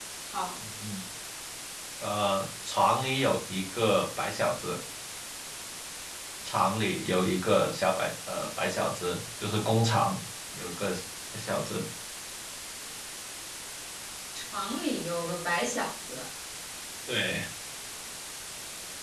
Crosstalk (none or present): none